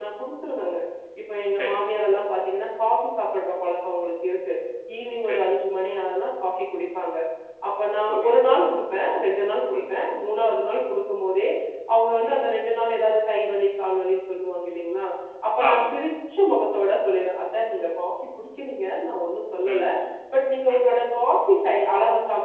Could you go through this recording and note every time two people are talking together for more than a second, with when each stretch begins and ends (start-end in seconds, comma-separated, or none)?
none